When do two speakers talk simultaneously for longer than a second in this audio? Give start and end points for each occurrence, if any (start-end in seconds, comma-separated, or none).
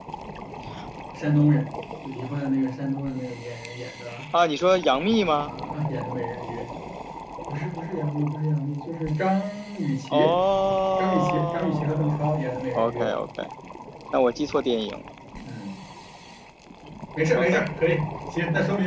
11.0-12.2